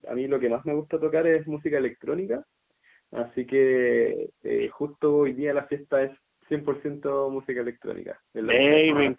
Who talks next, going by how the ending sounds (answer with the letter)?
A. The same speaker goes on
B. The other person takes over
B